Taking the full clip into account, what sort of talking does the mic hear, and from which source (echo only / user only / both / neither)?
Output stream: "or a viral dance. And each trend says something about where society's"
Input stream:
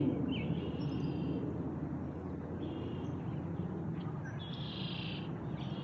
neither